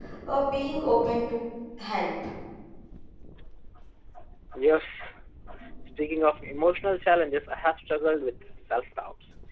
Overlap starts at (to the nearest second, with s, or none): none